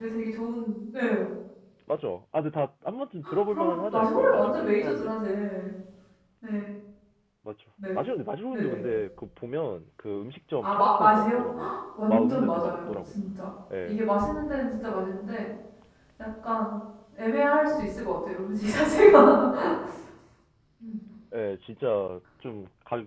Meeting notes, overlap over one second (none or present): present